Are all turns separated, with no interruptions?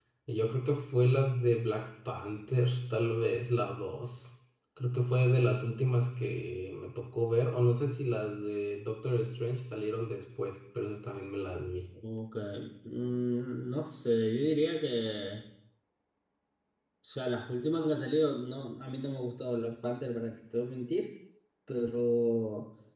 Yes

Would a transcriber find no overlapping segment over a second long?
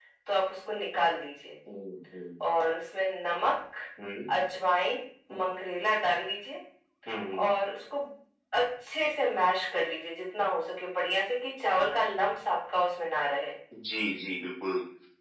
Yes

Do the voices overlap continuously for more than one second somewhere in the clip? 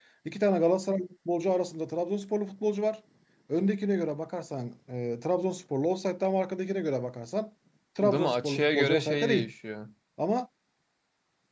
Yes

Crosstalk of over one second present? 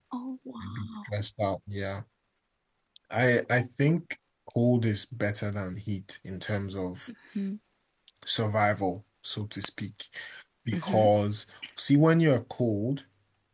No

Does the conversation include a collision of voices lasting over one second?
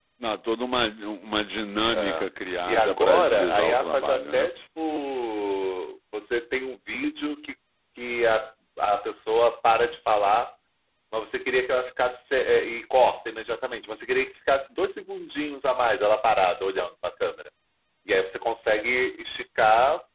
Yes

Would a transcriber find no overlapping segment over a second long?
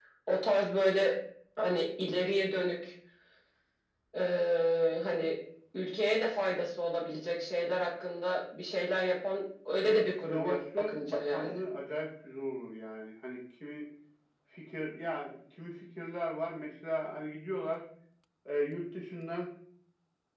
No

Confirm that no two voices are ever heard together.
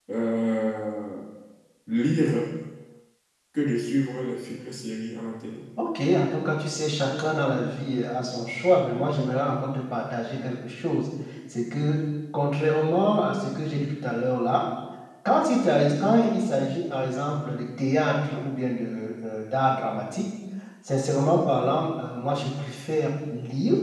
Yes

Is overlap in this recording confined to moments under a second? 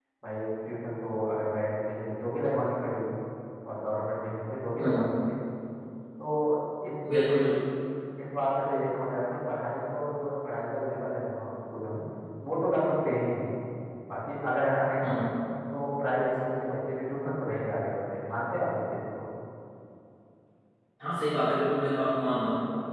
Yes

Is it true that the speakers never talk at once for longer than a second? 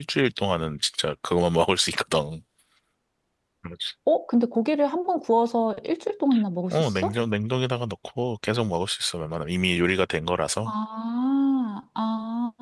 Yes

